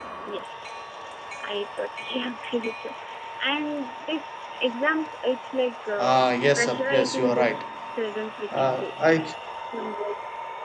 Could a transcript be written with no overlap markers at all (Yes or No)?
No